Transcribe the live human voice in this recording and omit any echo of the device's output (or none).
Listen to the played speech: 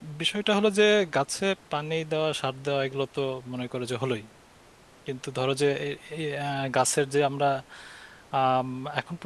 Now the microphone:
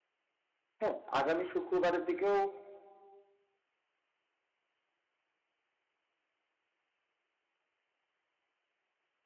হ্যাঁ আগামী শুক্রবারের দিকেও